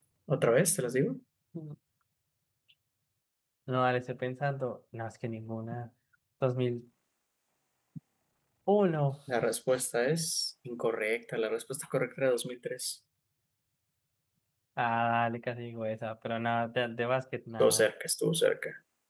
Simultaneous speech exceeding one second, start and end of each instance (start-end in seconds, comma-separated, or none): none